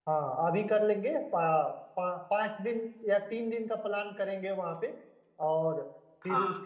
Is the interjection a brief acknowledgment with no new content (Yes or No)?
Yes